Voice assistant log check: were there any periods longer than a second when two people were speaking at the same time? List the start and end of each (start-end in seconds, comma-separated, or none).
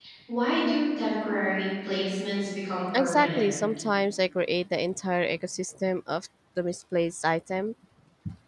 none